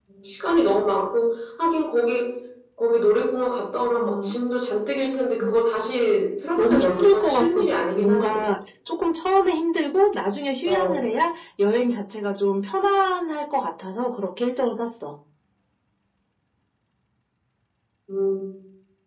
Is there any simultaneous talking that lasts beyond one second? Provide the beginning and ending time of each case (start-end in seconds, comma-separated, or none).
6.6-8.4